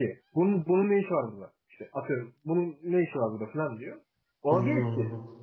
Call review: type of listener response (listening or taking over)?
listening